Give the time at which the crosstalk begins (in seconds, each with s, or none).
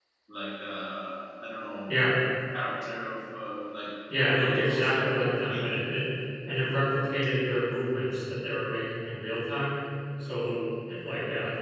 4.4 s